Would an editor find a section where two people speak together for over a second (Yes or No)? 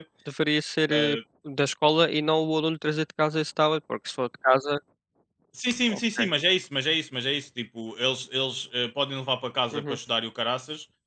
No